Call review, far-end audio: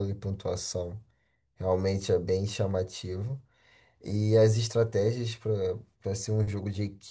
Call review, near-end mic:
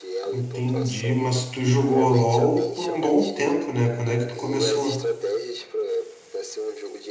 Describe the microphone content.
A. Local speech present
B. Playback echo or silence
A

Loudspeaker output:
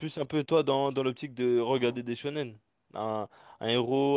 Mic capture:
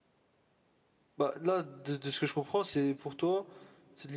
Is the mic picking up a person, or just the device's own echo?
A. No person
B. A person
B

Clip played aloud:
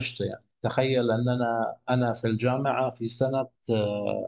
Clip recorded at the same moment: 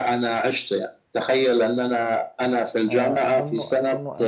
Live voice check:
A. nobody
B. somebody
B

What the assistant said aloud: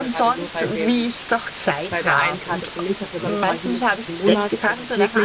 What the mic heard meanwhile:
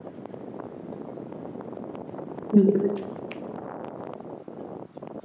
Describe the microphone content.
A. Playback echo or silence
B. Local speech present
B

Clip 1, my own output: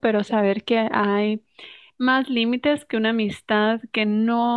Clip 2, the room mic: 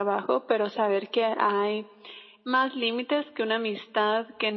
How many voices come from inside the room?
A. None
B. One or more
A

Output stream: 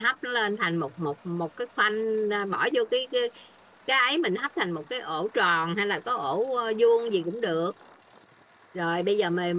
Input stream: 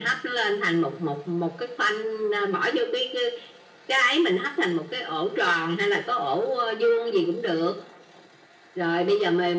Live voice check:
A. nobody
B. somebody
A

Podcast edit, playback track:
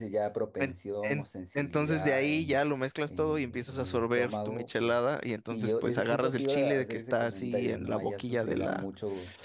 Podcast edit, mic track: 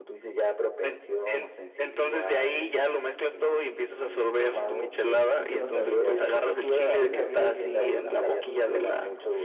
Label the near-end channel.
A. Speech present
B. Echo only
A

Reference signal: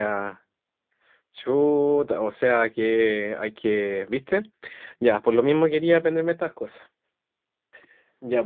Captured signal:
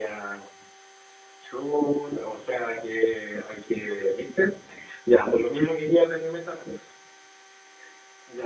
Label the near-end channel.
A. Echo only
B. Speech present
A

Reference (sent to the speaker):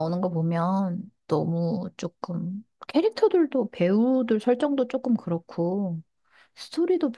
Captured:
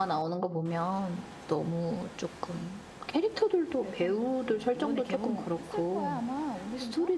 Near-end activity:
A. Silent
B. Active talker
B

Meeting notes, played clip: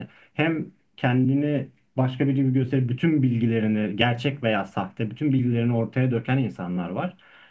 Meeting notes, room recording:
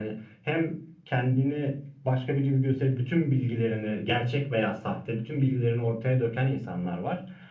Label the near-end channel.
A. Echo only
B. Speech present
A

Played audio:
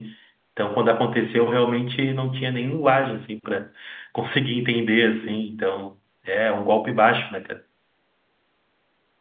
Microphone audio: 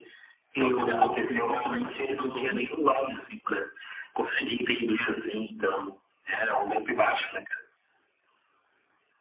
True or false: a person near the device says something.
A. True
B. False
A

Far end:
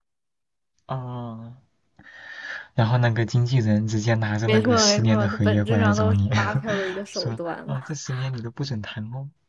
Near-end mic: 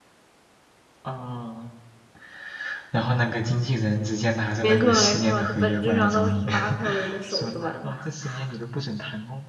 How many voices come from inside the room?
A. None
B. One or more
A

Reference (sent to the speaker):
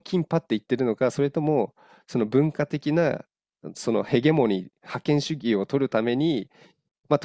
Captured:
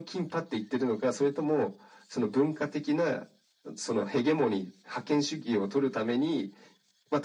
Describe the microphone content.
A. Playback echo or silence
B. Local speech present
A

